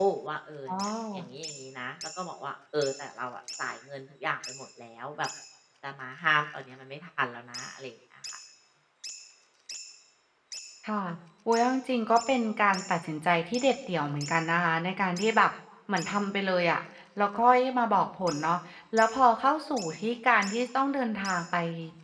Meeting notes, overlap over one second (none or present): none